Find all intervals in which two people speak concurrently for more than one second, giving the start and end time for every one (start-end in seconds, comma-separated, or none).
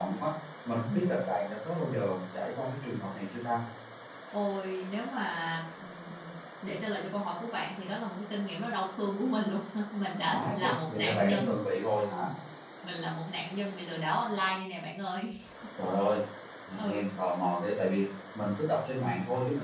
10.2-11.5